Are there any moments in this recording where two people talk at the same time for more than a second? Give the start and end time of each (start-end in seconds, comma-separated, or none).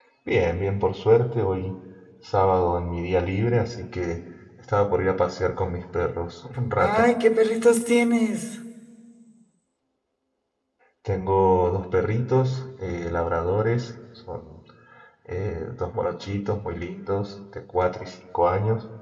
none